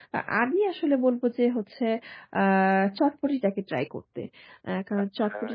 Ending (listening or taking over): taking over